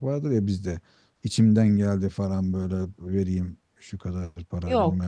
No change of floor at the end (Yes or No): No